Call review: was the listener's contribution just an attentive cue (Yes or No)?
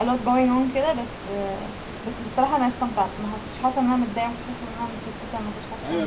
No